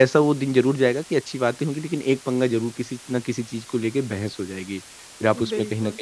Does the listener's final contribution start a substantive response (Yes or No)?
No